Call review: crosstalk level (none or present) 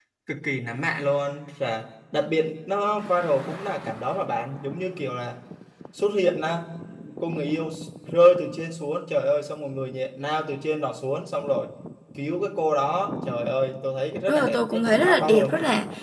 present